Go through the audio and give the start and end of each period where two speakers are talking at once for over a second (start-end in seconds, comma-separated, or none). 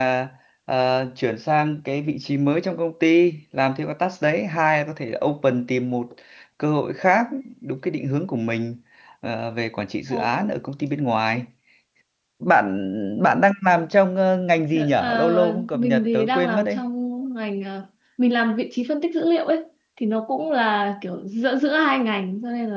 15.0-16.8